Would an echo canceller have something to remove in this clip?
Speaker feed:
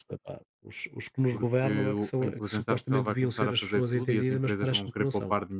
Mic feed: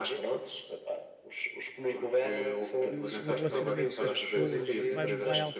Yes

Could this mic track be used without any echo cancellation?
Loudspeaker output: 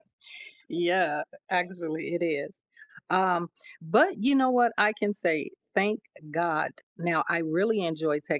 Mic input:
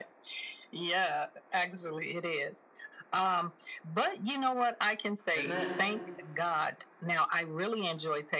No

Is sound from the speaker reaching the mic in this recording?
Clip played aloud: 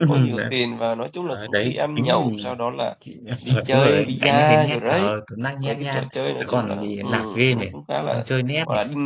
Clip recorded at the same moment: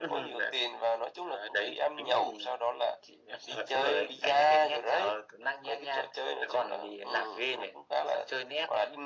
Yes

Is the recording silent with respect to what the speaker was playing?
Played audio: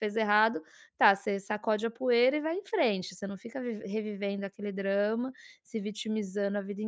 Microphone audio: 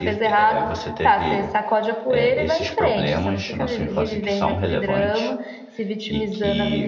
No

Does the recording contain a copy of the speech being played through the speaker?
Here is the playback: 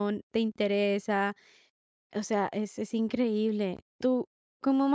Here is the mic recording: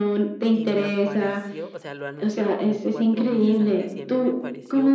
Yes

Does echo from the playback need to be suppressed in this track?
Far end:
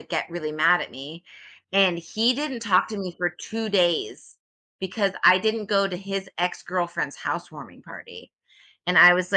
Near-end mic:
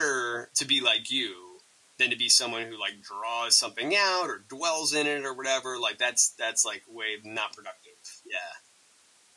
No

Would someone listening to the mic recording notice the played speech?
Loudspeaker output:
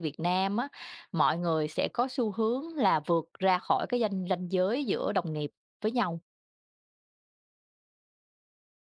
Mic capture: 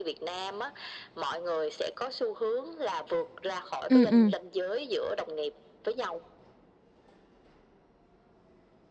Yes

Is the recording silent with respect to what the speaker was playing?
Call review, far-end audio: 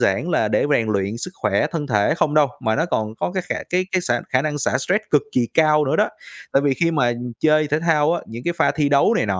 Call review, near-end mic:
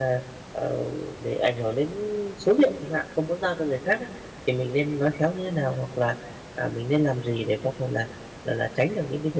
Yes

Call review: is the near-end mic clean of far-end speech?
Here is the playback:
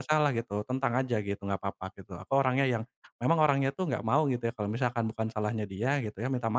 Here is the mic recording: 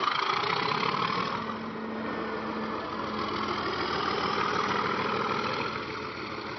Yes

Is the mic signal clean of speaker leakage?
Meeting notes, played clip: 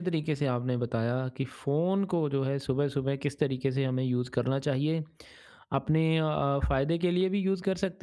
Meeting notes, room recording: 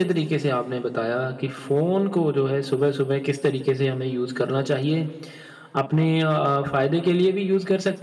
No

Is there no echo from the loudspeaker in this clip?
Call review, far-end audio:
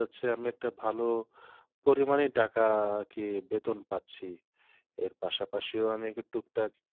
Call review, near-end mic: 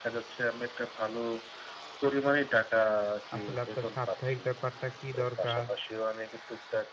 No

